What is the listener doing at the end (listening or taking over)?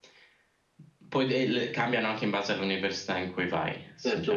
taking over